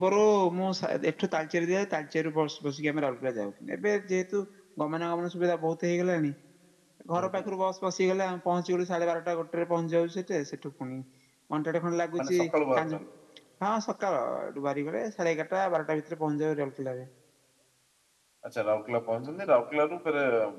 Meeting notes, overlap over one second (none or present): none